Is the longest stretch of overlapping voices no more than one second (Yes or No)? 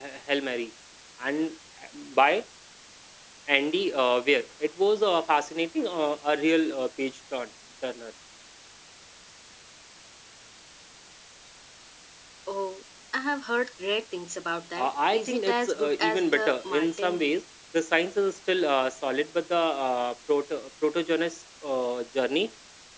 No